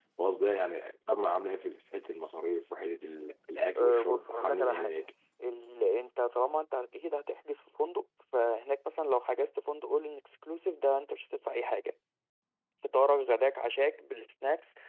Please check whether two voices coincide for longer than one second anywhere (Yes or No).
Yes